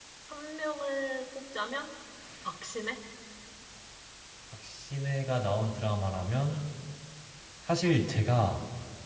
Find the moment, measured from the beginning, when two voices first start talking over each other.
none

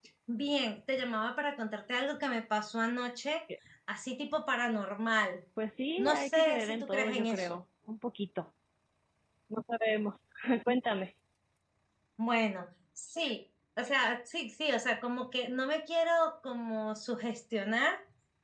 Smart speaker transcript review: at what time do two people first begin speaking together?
6.0 s

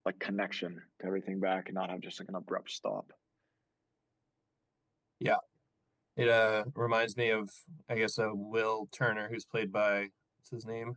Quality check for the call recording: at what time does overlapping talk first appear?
none

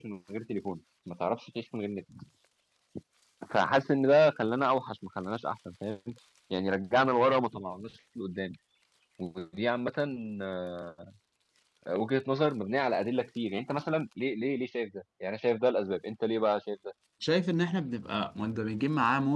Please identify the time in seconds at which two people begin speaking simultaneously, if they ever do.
none

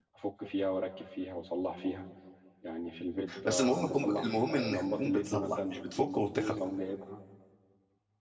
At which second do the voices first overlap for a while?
3.5 s

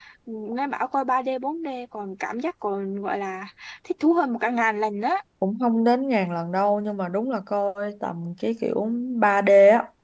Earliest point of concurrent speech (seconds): none

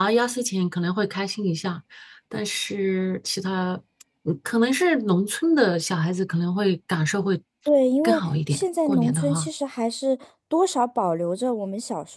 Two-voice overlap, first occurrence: 8.0 s

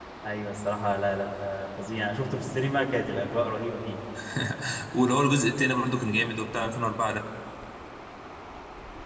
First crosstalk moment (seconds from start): none

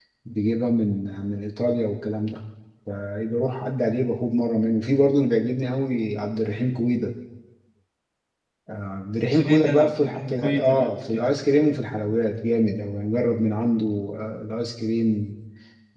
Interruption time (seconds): 9.4 s

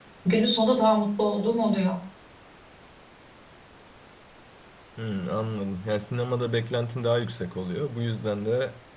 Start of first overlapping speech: none

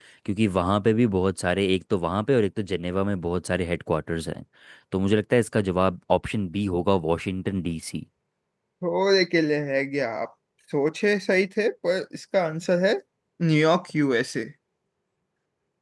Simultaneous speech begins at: none

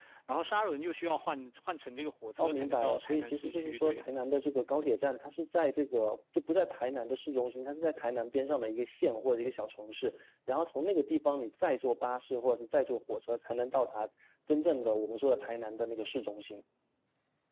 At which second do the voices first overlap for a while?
2.4 s

